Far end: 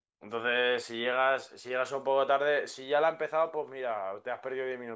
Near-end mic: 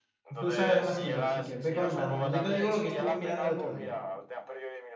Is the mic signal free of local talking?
No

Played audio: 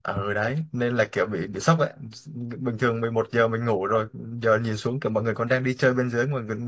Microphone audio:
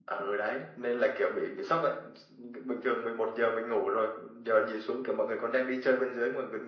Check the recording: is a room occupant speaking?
No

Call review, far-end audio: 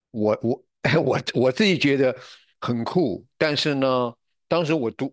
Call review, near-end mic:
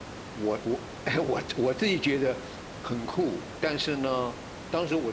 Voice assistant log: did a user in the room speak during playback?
No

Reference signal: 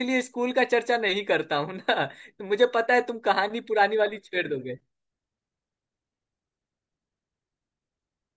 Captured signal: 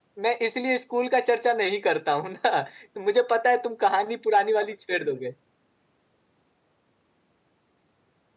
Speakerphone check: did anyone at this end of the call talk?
No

